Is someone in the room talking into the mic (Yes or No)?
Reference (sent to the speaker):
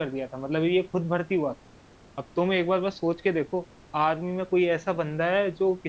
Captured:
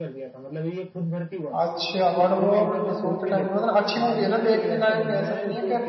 Yes